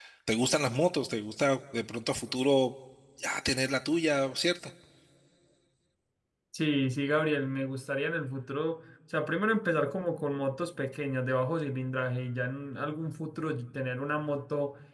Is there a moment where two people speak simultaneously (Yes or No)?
No